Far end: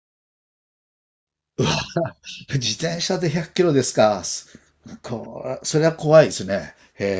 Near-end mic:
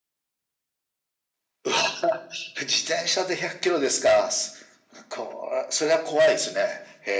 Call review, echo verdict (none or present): present